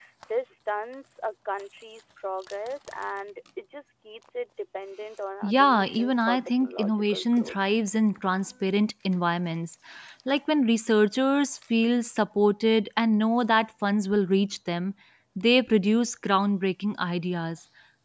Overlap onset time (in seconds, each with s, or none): 5.4 s